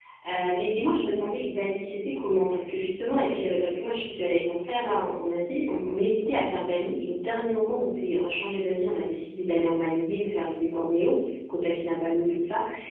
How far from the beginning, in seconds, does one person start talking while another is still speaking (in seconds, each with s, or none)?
none